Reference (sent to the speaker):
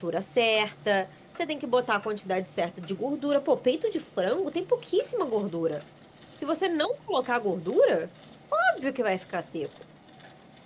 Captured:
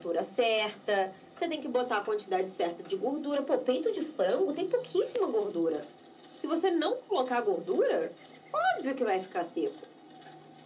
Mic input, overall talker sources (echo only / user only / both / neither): echo only